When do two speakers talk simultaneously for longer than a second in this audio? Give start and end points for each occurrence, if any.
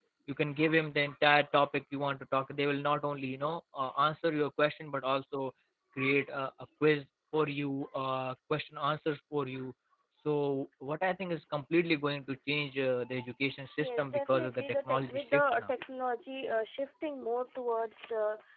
13.8-15.6

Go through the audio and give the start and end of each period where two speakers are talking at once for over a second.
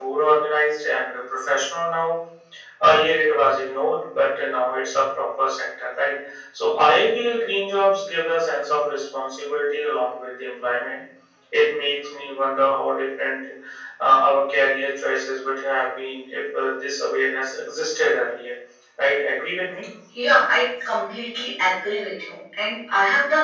none

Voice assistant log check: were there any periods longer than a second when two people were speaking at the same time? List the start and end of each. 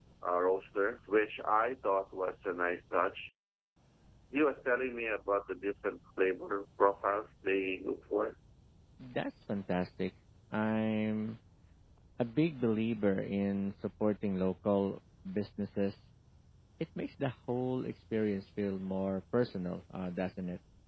none

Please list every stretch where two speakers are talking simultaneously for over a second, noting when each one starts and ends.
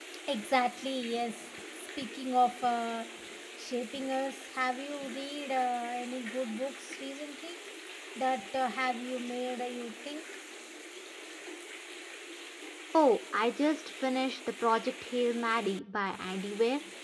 none

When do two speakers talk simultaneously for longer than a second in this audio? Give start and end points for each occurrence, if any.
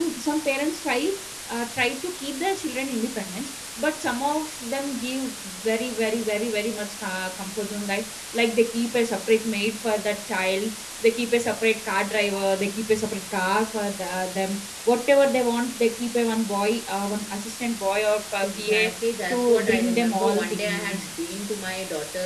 19.3-21.1

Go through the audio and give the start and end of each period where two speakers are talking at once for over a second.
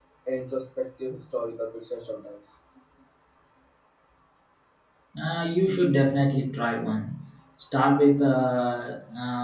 none

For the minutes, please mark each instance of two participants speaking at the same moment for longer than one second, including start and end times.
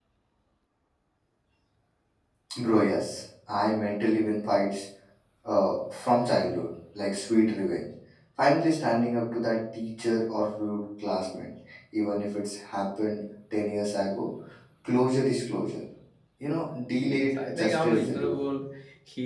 16.9-18.4

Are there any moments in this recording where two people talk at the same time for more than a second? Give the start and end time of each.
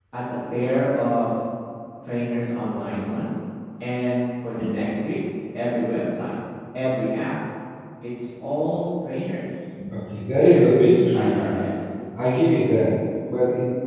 10.3-11.5

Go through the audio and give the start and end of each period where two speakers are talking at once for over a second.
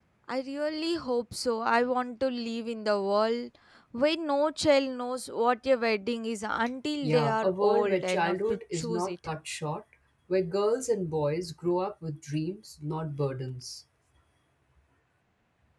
7.0-9.1

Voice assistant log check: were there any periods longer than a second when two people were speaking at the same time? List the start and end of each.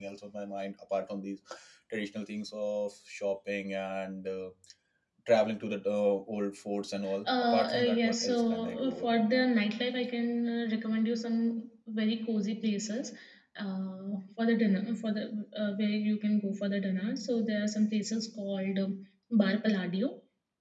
7.2-9.1

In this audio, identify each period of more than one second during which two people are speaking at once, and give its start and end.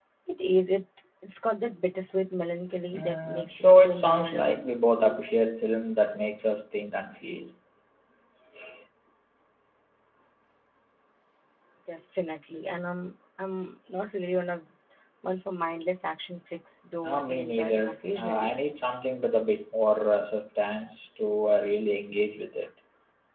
2.9-4.6, 17.0-18.6

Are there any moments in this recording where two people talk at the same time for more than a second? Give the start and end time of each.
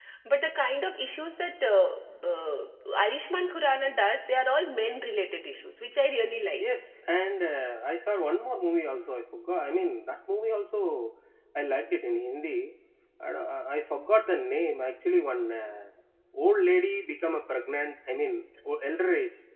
none

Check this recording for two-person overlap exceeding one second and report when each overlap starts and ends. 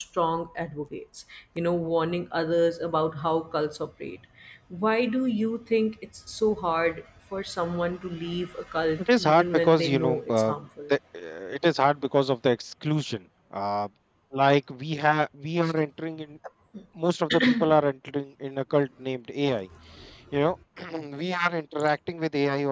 9.0-10.9

